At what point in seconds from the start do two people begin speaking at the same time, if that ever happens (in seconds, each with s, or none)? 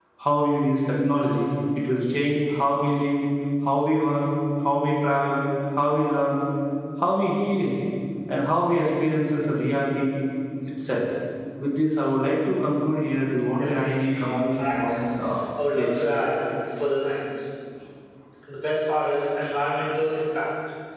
13.6 s